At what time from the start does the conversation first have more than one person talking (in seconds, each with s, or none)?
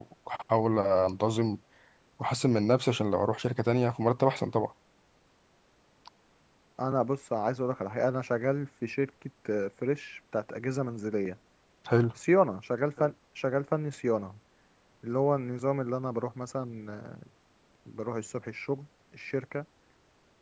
none